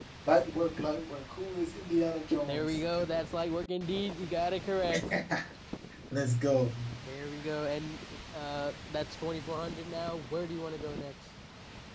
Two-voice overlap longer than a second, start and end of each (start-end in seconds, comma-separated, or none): none